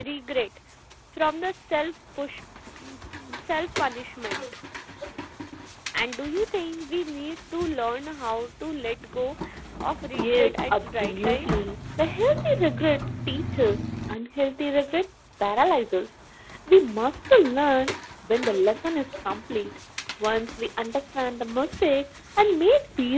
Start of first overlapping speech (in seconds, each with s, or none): 10.2 s